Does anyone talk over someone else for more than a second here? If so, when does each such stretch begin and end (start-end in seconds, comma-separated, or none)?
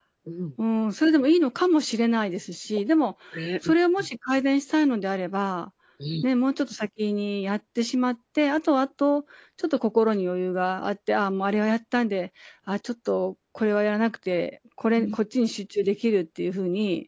none